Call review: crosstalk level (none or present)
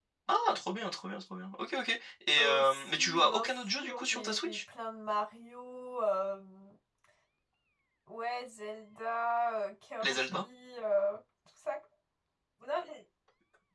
present